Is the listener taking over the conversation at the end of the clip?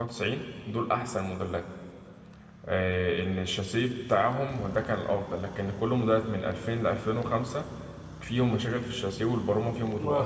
Yes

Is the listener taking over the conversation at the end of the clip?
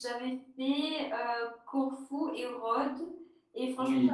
No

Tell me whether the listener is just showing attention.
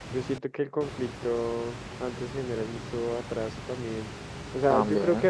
Yes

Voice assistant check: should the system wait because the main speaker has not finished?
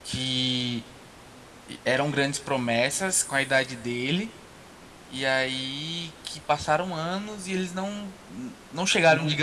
Yes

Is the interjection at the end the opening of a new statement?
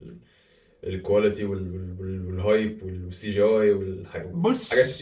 Yes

